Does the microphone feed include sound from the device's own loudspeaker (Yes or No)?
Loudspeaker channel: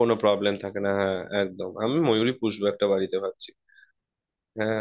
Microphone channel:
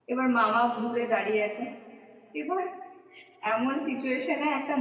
No